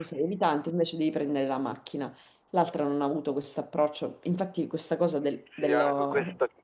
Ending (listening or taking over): taking over